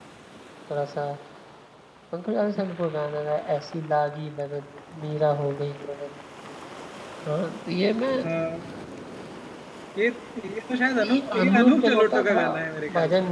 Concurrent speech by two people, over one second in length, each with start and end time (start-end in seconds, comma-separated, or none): 11.0-12.4